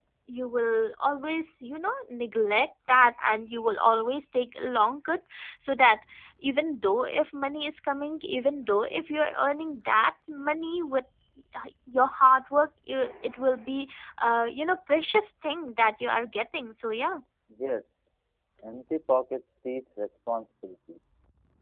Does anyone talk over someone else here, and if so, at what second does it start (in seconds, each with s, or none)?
none